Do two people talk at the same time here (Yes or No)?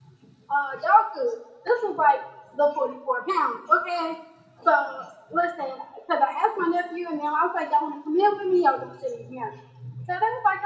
No